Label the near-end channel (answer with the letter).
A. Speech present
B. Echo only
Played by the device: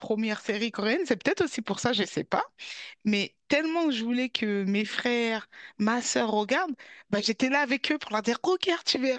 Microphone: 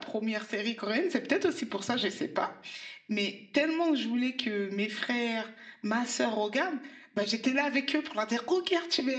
B